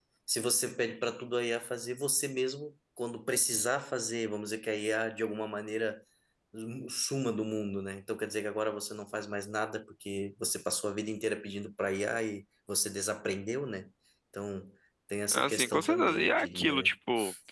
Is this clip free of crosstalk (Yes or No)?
No